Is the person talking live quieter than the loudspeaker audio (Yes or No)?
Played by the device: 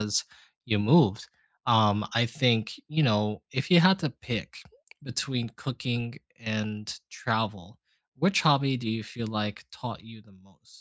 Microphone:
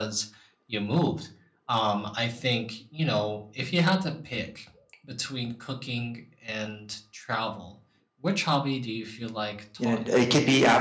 No